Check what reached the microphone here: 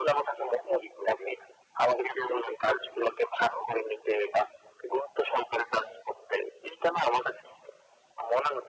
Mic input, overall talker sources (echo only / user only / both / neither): echo only